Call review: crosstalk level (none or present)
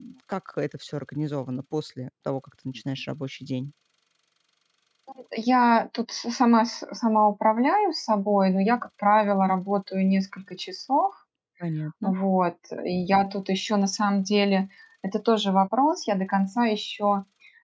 none